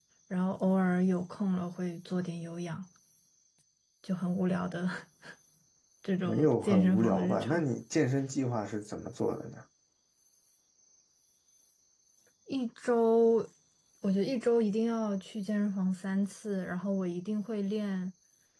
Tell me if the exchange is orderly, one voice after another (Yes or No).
No